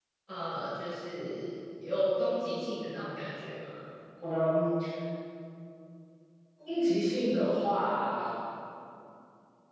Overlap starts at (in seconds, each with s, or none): none